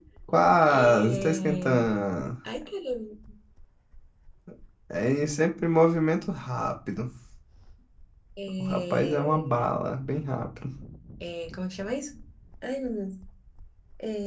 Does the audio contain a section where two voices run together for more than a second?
Yes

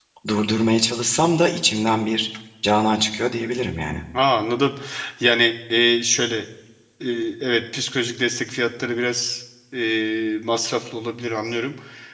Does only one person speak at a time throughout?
Yes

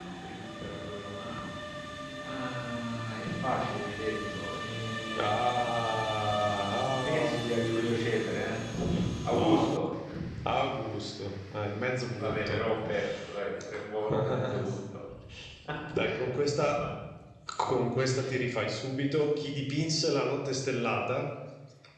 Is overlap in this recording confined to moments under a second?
No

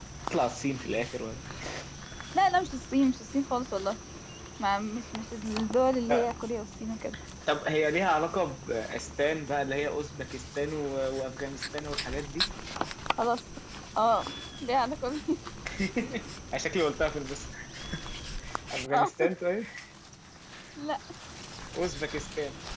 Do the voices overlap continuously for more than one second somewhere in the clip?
No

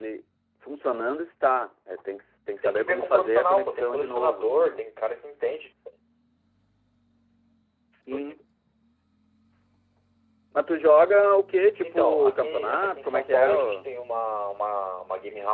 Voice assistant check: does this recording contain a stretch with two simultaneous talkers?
Yes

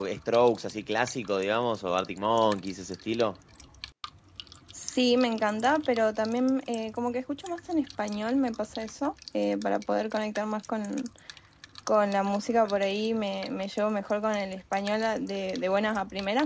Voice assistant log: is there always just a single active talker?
Yes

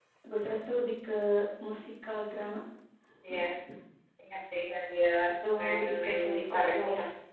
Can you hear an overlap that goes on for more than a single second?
Yes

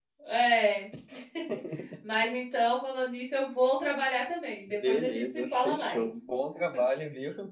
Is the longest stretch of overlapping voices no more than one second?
No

